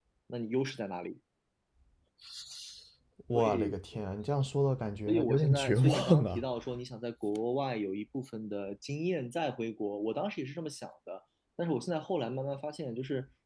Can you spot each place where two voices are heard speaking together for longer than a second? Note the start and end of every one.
5.1-6.4

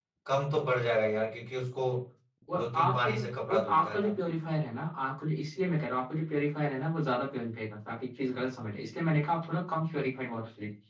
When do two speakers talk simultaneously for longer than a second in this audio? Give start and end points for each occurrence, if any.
2.6-4.1

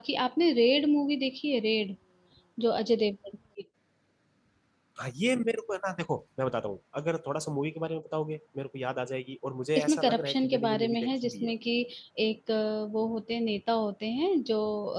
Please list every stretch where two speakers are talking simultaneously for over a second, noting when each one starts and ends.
9.8-11.5

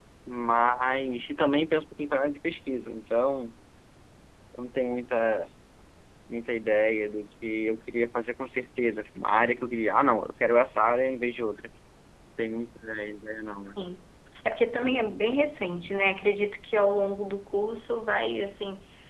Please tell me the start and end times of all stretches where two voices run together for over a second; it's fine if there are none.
none

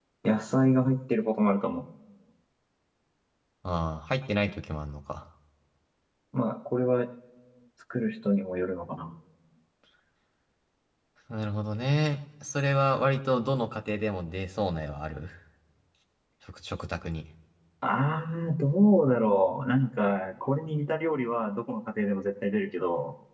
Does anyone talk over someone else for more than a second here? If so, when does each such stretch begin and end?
none

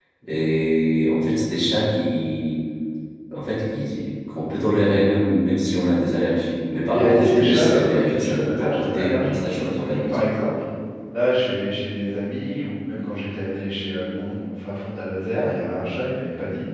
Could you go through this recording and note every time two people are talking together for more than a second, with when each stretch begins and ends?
6.9-10.2

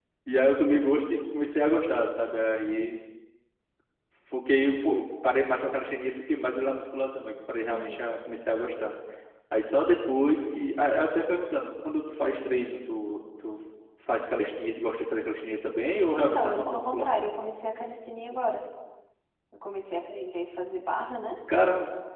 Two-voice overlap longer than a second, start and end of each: 16.2-17.4

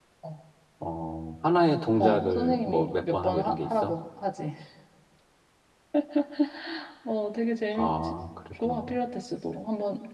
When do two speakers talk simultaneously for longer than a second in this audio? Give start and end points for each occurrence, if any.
2.0-3.9

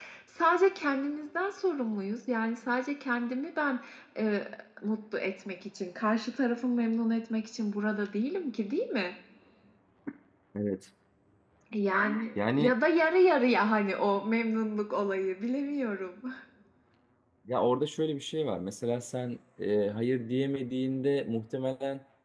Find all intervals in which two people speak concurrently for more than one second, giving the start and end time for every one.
none

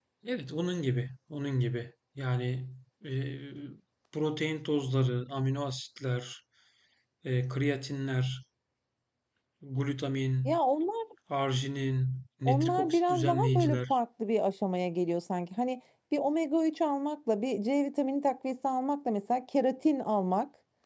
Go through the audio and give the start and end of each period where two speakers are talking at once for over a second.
12.4-14.0

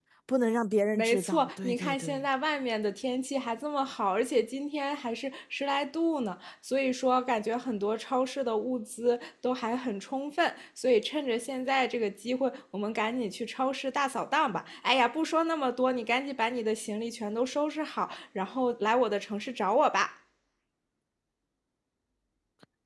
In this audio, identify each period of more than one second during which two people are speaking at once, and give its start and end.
0.9-2.3

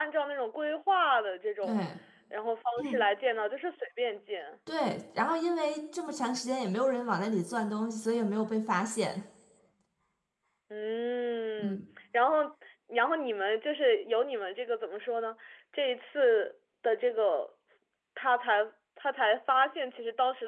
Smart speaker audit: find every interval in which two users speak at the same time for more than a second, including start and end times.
none

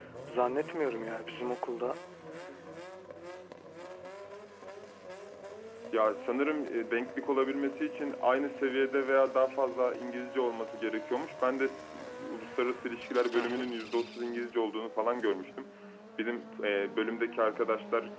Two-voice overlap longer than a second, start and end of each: none

